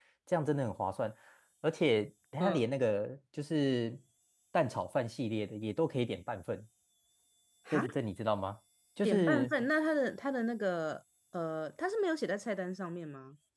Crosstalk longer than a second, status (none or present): none